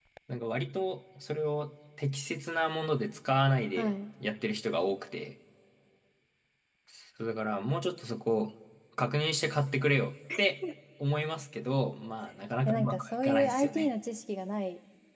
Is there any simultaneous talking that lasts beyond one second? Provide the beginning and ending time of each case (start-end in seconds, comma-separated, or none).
12.7-13.9